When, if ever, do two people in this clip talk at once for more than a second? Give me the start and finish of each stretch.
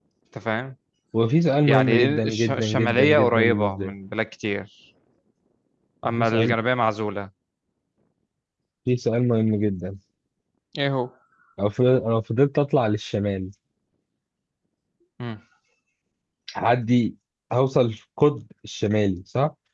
1.7-3.9

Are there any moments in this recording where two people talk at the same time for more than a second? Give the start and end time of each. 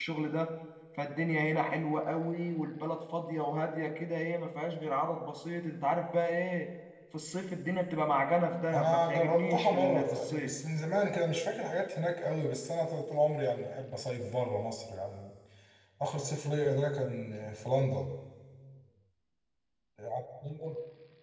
8.7-10.5

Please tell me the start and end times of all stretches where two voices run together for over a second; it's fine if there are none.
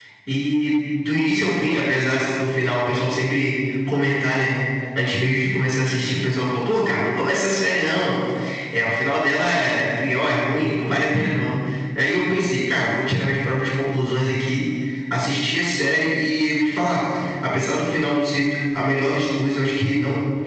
none

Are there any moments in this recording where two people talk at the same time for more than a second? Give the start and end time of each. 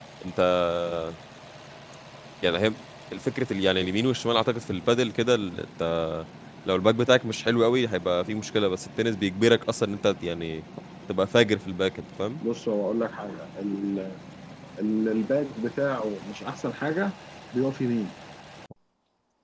none

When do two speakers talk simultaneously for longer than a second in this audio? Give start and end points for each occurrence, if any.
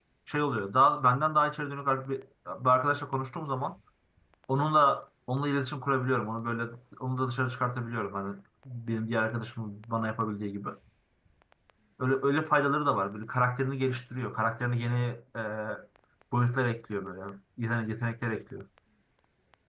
none

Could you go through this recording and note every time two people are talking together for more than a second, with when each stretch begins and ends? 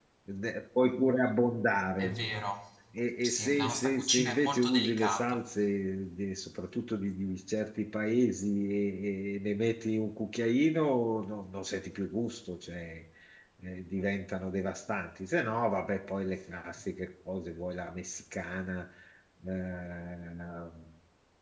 3.2-5.4

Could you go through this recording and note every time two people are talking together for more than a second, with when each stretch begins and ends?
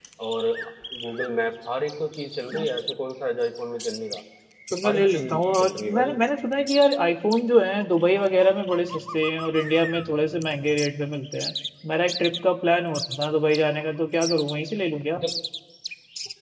4.8-6.1

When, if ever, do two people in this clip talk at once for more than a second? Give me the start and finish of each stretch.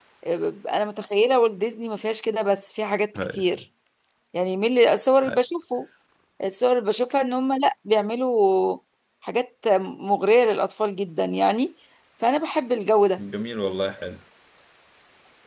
none

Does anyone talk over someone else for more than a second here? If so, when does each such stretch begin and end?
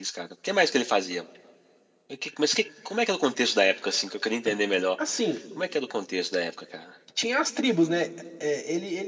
none

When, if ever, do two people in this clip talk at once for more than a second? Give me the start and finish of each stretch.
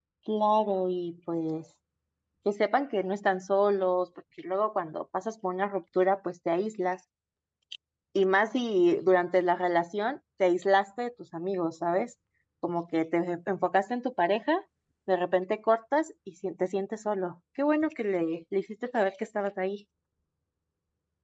none

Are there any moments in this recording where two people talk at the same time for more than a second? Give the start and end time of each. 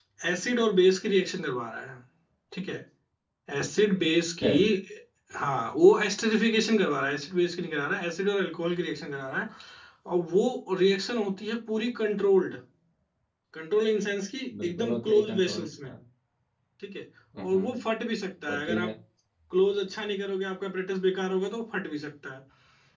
14.6-15.9

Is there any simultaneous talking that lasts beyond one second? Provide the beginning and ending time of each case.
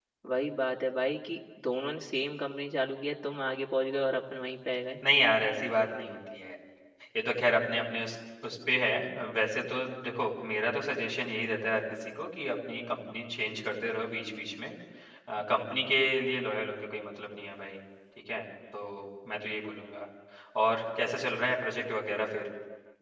none

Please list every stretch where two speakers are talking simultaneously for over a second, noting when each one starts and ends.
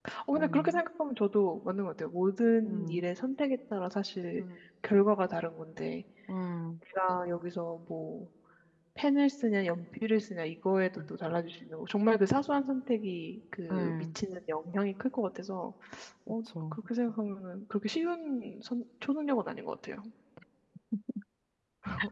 none

